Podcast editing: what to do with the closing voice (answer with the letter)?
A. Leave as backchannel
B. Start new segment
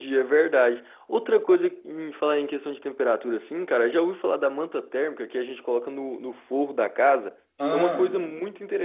A